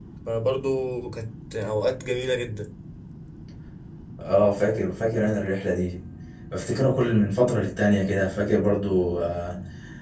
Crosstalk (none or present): none